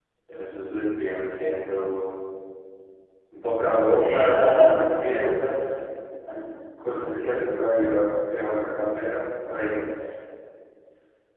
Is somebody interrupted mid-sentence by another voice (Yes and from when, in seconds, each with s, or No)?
Yes, from 4.0 s